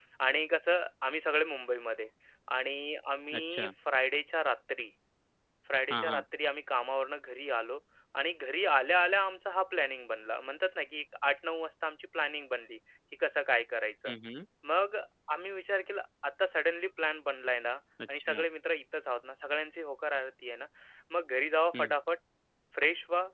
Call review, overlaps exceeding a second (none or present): none